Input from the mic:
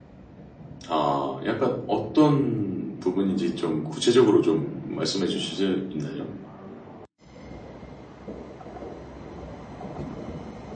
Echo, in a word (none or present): none